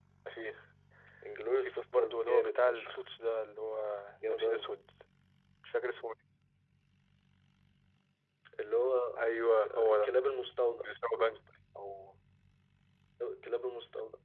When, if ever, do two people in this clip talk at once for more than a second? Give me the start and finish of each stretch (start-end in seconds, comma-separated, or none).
1.6-3.0